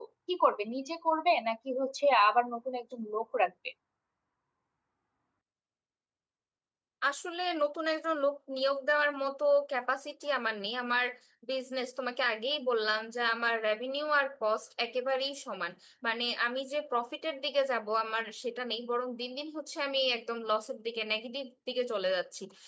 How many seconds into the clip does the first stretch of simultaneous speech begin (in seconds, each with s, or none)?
none